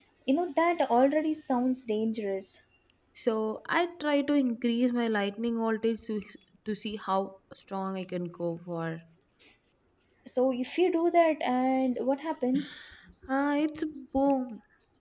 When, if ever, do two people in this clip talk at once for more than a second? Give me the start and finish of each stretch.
none

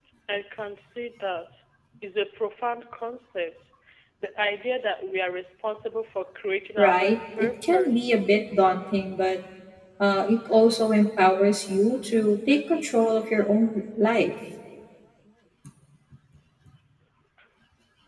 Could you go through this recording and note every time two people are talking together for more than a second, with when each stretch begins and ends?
6.8-8.1

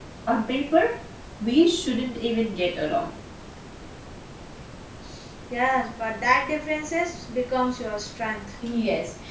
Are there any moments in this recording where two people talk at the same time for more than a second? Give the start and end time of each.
none

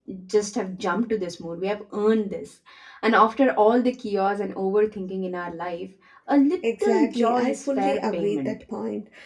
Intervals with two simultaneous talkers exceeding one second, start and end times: 6.8-8.5

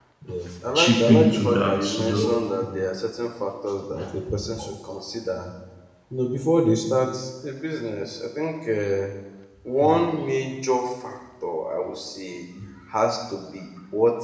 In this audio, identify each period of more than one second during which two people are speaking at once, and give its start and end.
0.8-2.3

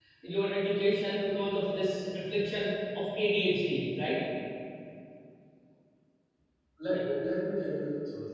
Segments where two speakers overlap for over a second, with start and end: none

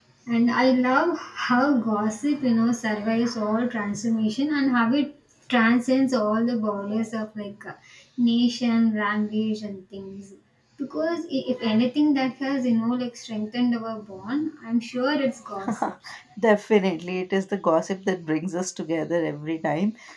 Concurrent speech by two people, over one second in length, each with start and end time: none

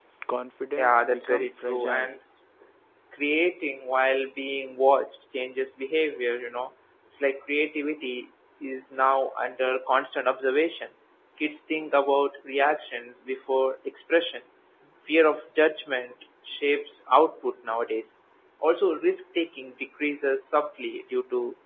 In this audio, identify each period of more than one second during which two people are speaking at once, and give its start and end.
0.8-2.1

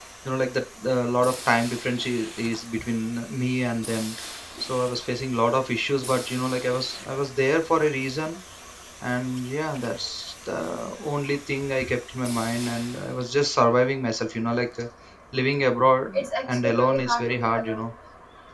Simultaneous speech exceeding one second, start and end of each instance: 16.6-17.9

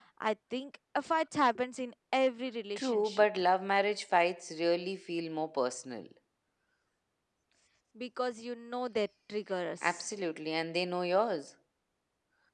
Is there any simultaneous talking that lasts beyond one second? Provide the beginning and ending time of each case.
none

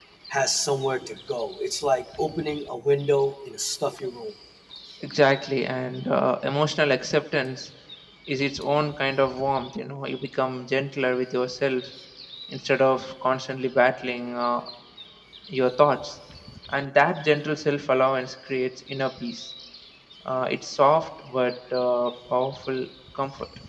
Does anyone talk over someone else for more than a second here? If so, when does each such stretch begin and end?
none

